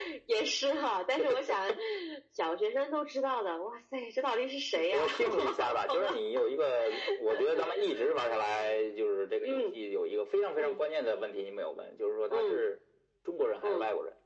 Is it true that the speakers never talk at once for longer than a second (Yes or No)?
No